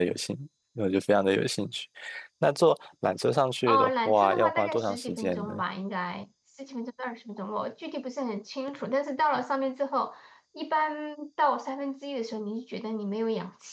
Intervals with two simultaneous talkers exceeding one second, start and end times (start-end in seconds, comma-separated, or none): 3.7-5.5